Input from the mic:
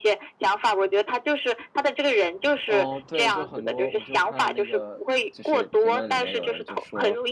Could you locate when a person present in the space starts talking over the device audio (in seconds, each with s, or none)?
2.6 s